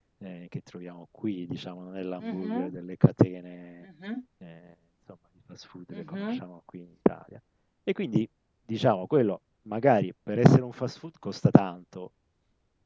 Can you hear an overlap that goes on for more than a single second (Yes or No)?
No